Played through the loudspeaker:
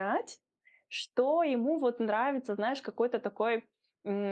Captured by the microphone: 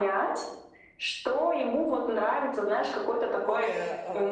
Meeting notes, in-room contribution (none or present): present